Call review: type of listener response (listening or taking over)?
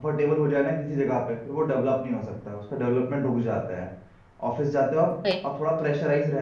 listening